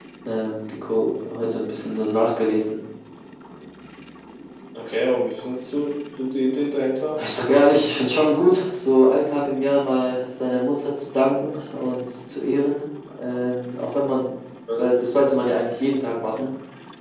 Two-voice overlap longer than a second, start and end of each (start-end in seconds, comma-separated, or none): none